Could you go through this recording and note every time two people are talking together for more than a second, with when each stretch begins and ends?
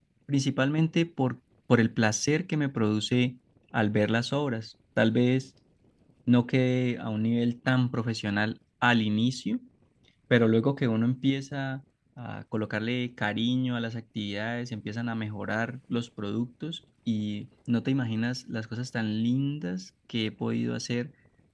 none

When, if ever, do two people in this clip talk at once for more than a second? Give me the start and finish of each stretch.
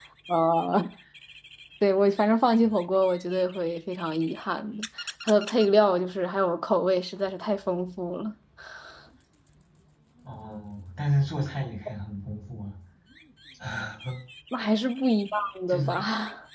none

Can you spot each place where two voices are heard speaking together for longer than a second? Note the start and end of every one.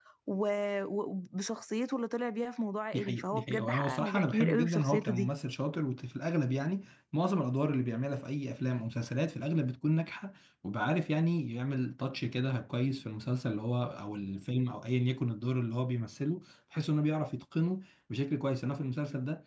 2.9-5.3

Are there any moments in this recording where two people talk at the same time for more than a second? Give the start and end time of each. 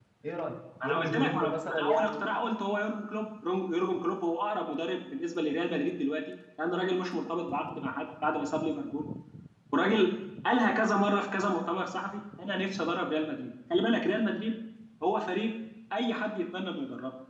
0.8-2.2

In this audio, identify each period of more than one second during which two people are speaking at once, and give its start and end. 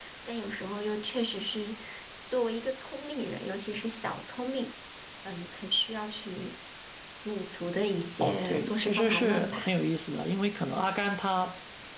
8.2-9.7

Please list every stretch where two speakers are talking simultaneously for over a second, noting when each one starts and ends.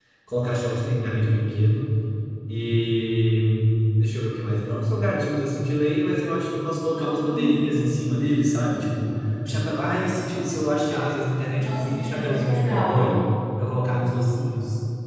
11.6-13.1

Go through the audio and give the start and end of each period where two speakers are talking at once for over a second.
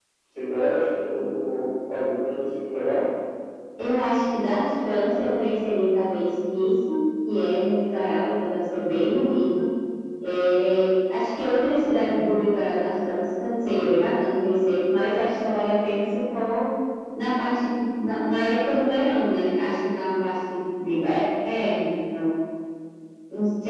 none

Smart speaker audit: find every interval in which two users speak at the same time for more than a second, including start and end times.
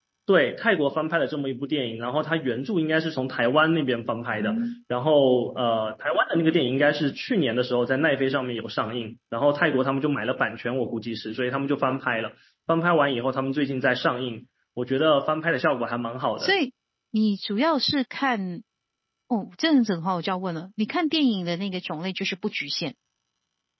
none

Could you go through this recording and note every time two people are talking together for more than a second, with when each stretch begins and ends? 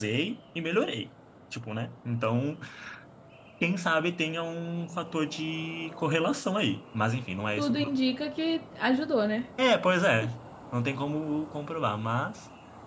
none

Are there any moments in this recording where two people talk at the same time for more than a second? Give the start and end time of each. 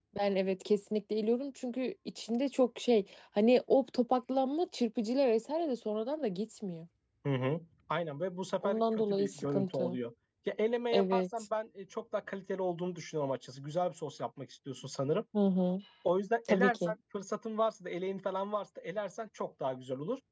8.6-10.0

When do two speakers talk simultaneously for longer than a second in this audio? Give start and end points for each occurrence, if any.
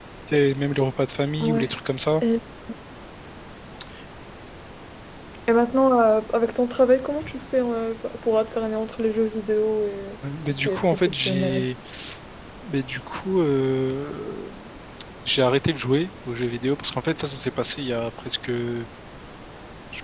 10.5-11.7

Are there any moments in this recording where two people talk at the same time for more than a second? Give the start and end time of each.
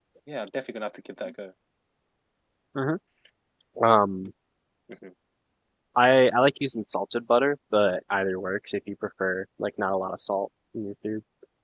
none

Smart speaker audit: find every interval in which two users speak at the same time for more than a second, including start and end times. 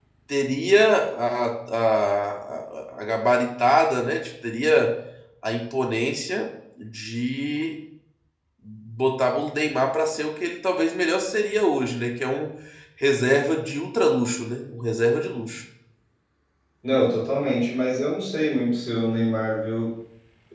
none

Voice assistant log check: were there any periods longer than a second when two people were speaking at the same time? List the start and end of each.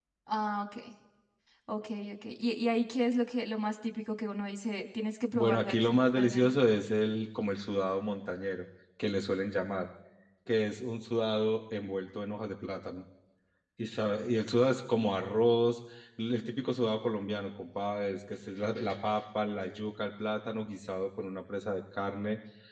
5.3-6.6

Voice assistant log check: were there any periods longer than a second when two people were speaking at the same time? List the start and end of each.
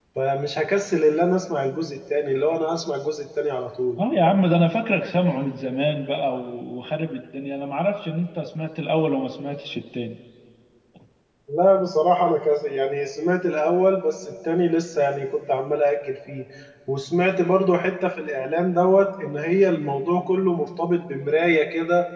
none

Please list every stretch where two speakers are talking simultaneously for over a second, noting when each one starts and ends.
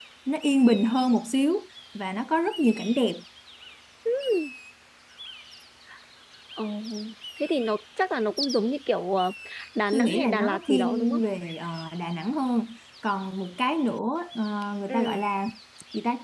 9.9-11.2

